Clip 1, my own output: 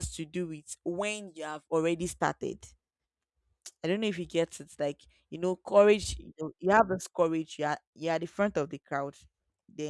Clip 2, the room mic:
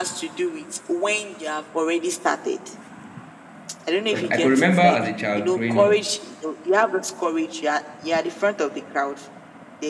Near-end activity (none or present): present